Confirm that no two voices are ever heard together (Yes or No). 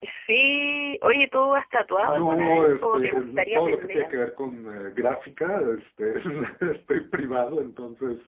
No